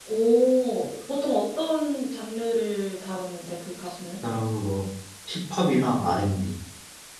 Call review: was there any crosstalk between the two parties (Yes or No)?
No